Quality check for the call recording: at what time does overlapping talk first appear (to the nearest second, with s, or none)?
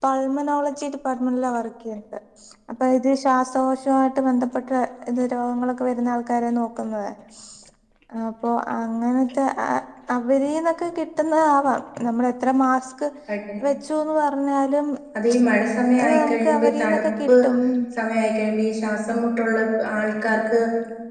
16 s